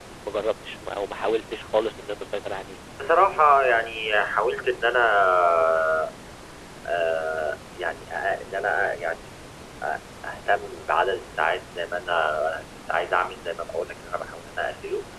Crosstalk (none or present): none